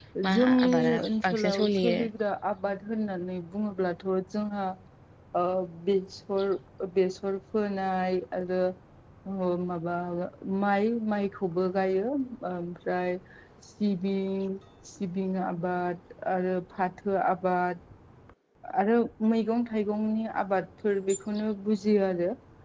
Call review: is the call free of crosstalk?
No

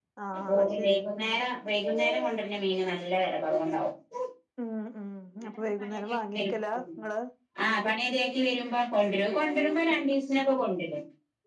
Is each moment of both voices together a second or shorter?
No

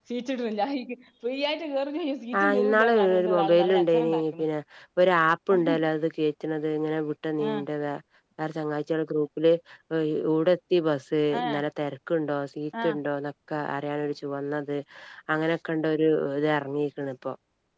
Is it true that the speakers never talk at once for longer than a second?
No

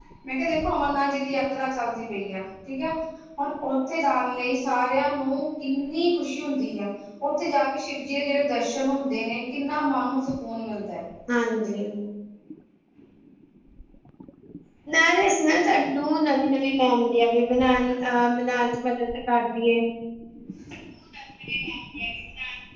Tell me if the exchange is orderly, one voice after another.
Yes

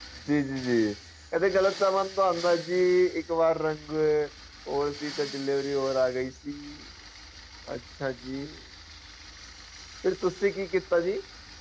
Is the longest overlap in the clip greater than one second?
No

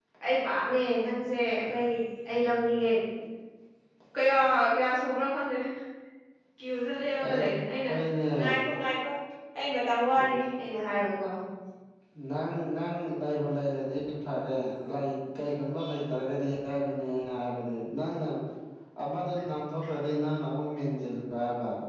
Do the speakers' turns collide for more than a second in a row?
No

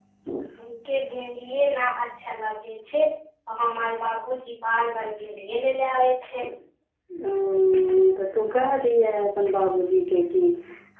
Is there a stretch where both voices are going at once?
No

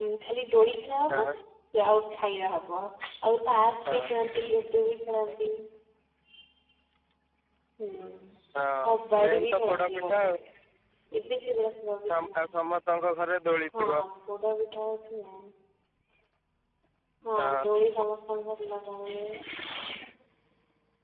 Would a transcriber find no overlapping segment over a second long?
No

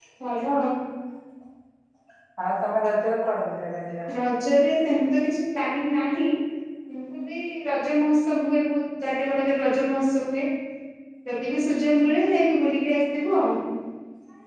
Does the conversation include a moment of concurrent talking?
No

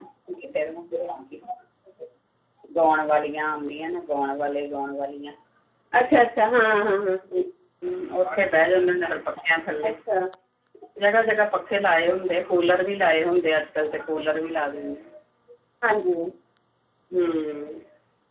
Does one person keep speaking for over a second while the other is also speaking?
No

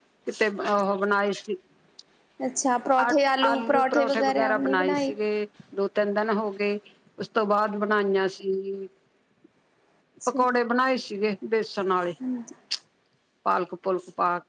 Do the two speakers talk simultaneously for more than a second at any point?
Yes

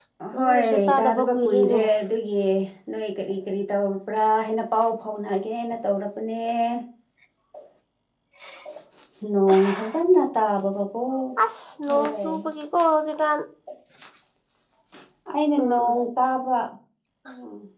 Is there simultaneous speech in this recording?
Yes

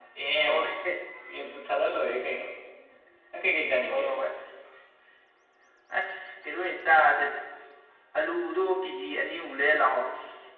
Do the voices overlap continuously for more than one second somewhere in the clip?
No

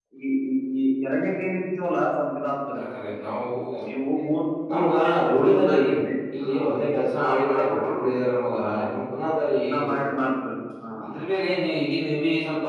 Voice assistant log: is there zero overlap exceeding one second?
No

